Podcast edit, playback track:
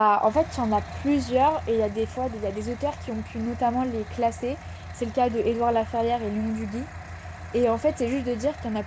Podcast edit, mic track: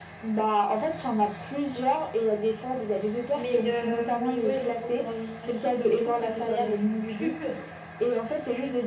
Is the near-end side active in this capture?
Yes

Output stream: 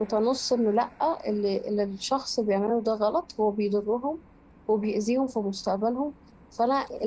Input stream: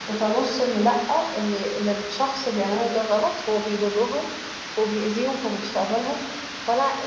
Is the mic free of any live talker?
Yes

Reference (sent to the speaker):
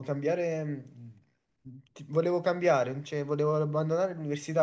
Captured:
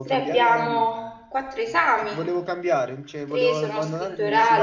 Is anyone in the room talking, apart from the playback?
Yes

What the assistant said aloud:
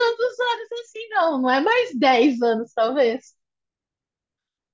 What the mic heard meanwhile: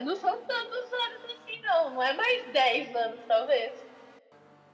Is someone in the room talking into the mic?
No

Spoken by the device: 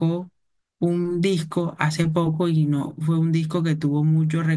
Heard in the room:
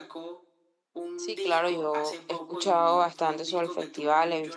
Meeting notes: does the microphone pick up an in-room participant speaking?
Yes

